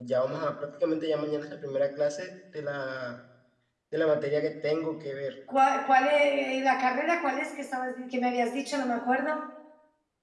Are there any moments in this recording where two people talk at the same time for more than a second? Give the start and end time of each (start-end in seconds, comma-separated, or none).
none